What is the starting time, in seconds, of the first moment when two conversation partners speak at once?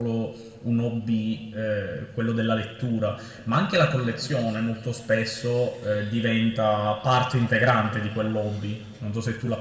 none

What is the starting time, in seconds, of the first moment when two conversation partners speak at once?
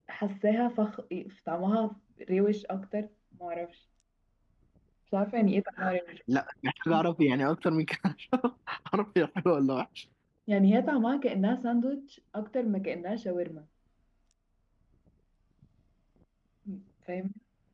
none

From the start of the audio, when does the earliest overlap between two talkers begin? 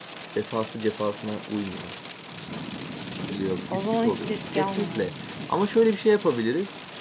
3.7 s

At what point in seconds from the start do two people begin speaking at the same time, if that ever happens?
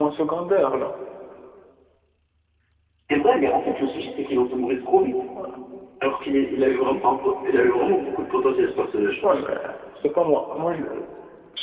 none

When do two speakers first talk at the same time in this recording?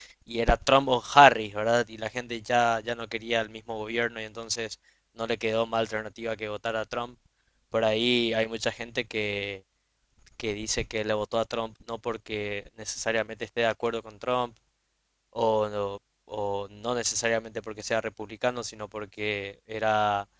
none

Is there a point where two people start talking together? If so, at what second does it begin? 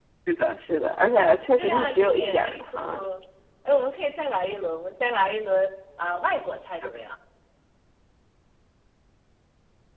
1.6 s

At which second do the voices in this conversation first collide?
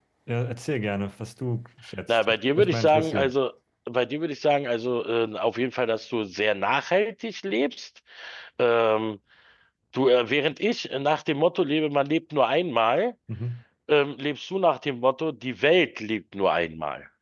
2.1 s

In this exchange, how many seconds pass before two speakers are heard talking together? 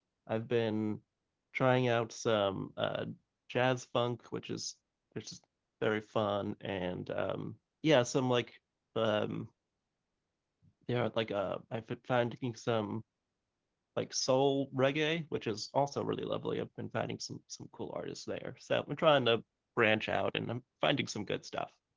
none

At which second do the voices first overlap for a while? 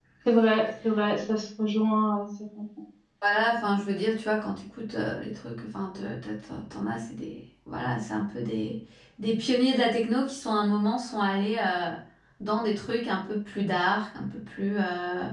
none

